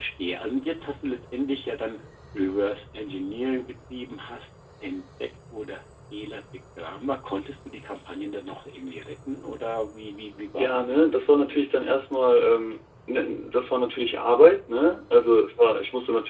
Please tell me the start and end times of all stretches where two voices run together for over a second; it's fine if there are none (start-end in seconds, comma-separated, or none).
10.6-11.9